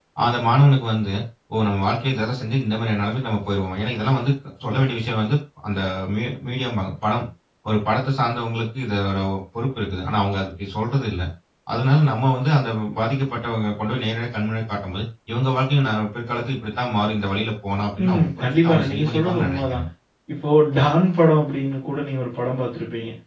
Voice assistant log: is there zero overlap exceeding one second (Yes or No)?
No